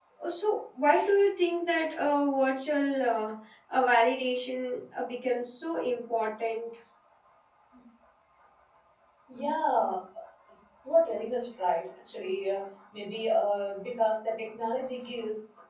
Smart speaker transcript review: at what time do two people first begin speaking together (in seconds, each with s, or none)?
none